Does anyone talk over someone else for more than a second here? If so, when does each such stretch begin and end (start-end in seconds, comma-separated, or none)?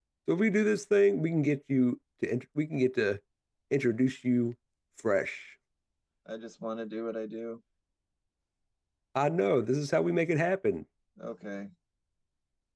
none